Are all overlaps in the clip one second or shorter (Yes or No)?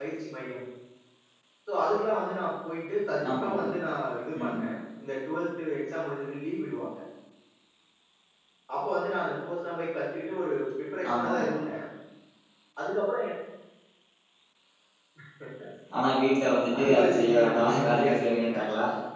No